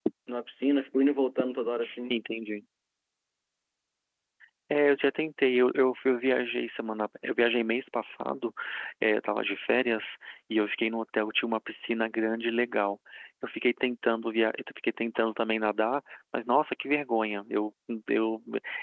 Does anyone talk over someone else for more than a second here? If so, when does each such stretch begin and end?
none

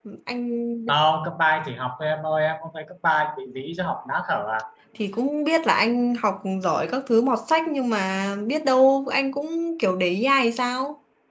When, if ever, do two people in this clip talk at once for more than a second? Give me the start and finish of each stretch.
none

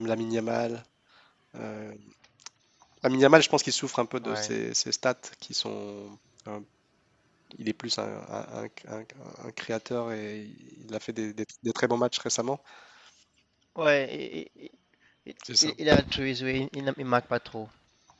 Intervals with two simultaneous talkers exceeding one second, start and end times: none

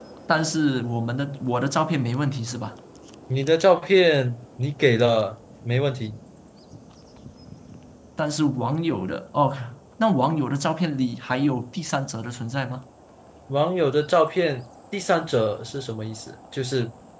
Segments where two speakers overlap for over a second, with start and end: none

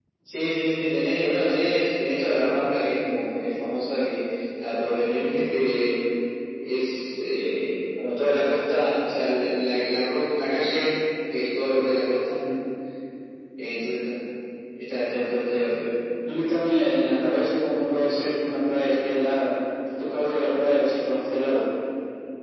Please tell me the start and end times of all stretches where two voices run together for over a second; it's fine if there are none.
none

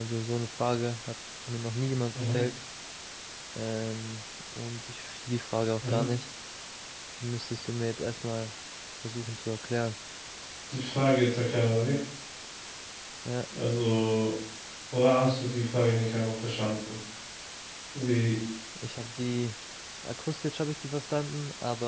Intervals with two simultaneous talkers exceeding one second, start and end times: none

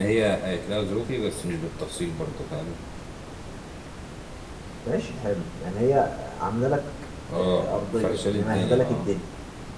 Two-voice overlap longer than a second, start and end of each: 7.4-9.0

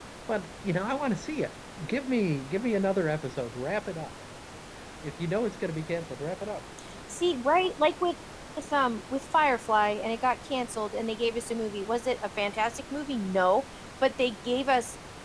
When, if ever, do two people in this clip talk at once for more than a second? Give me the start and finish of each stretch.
none

